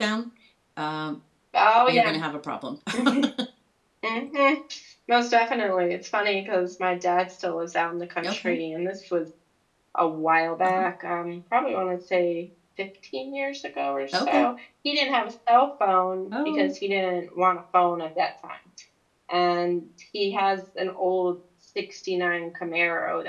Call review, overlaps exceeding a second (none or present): none